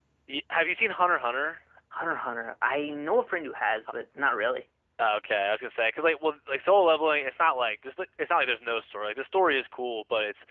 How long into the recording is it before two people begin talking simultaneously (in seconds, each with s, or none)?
none